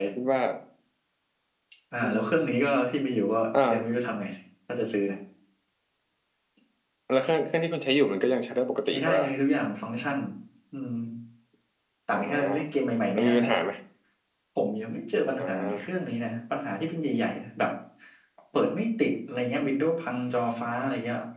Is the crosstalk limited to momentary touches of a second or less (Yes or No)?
Yes